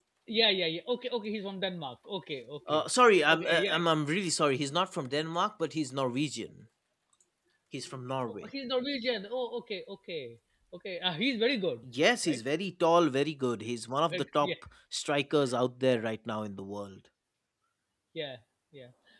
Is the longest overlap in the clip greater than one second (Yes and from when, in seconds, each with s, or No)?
No